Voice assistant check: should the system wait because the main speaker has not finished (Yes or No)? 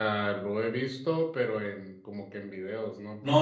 No